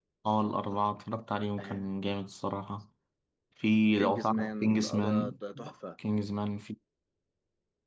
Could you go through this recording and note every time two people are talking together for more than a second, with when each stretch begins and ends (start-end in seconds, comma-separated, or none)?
4.0-5.3